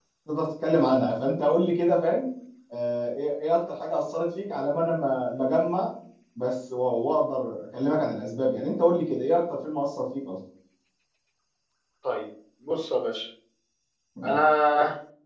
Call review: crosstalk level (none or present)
none